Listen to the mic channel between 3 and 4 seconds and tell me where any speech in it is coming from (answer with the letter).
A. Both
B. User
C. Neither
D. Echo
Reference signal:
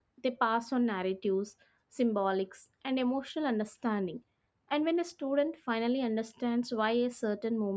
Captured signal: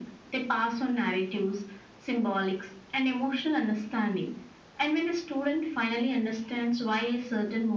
D